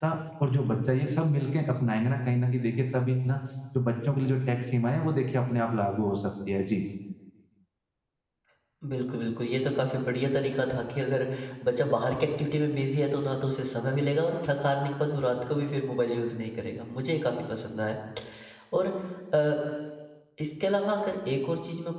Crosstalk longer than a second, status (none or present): none